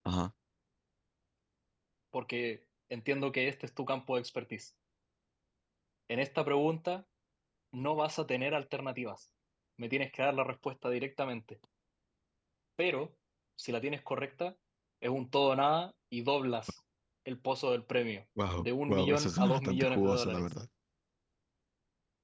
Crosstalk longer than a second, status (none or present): present